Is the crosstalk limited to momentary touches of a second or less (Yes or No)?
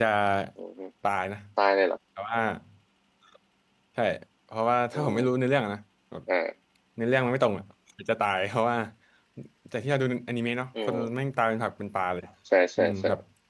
Yes